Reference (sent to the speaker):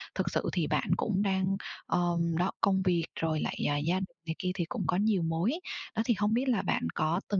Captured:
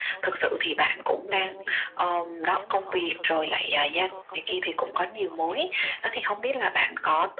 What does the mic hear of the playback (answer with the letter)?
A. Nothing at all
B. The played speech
B